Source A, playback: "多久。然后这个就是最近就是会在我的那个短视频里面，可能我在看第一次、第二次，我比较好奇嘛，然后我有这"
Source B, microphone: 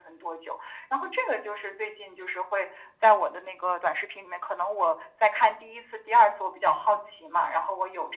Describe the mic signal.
echo only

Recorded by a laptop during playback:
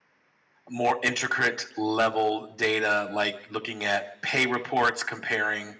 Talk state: user only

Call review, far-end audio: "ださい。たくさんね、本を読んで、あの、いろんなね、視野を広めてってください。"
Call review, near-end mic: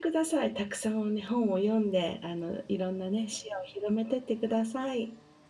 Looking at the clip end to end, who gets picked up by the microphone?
echo only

